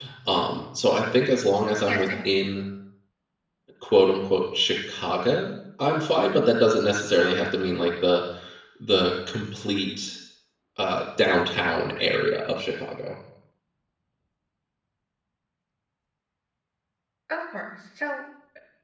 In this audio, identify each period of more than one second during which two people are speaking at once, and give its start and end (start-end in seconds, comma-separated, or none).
none